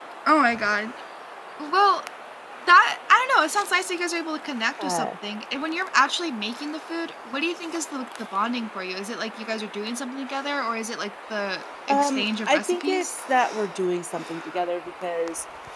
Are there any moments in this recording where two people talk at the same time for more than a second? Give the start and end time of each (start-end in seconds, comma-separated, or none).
11.9-13.1